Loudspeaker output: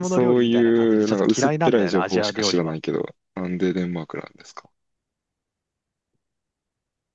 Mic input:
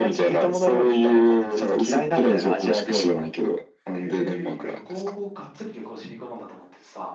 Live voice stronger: No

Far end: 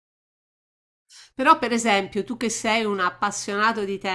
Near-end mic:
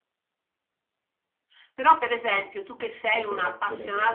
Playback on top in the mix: Yes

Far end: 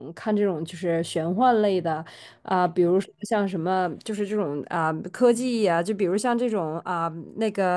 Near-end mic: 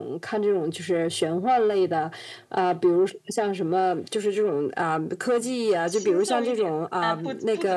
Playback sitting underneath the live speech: No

